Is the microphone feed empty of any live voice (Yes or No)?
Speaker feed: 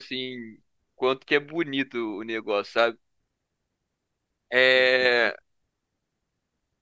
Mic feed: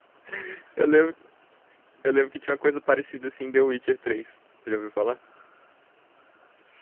No